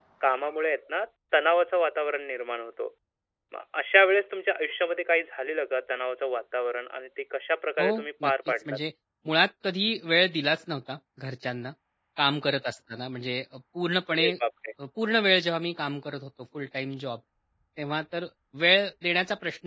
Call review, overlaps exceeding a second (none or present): none